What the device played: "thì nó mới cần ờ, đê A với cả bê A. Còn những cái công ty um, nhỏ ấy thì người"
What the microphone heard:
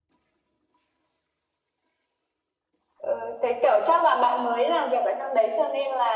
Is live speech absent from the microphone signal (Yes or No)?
No